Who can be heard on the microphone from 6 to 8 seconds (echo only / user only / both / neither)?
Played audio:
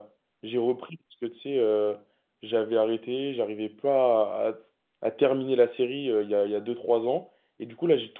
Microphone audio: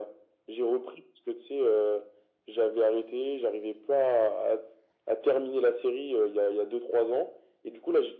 echo only